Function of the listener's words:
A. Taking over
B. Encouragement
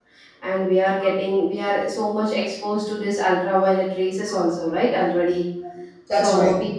B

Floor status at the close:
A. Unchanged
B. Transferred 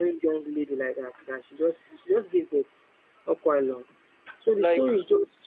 A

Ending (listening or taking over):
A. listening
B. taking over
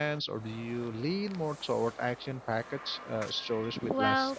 B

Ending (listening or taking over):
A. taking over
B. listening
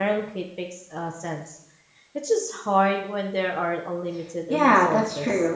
A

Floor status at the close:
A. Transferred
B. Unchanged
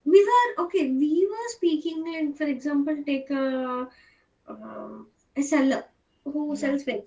B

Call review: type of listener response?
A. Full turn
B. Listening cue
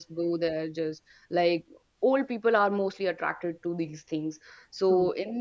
B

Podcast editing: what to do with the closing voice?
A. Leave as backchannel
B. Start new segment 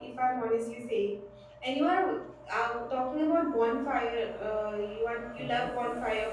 A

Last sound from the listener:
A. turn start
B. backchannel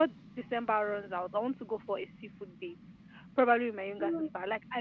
B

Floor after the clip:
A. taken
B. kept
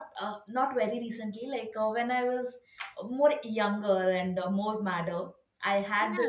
B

